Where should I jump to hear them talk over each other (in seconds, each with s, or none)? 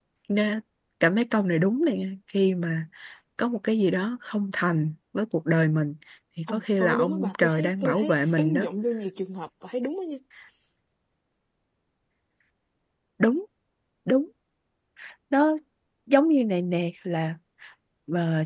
6.5 s